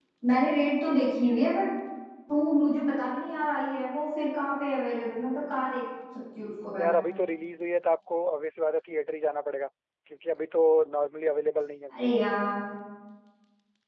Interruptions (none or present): none